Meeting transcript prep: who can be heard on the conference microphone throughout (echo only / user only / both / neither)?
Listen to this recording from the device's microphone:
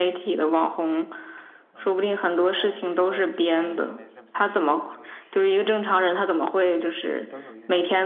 both